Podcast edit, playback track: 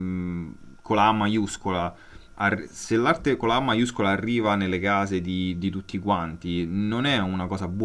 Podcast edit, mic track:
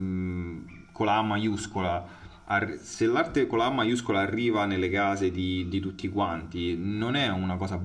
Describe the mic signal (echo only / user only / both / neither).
echo only